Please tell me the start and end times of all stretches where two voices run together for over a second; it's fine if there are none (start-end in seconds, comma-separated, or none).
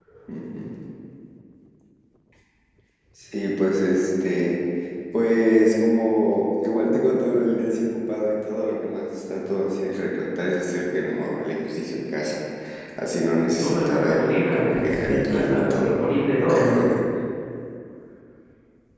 13.5-16.2